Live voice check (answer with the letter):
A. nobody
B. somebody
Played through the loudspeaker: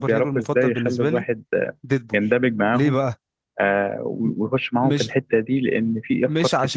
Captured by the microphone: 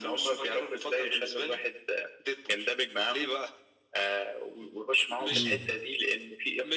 B